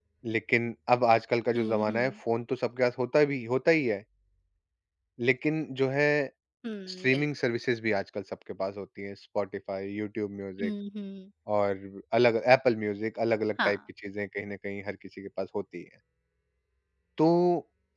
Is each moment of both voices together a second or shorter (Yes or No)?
Yes